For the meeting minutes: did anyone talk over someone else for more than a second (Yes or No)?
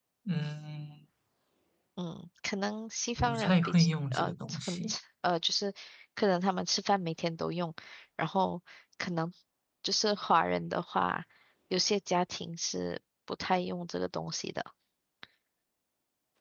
Yes